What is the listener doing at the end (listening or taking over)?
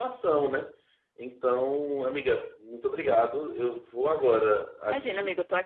taking over